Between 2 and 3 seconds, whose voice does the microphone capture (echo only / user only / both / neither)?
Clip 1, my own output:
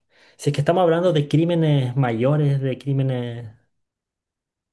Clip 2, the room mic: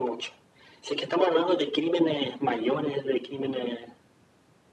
echo only